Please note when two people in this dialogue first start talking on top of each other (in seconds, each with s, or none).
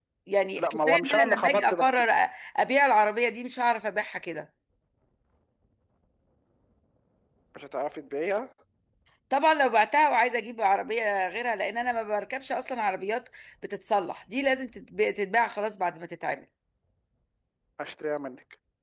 0.6 s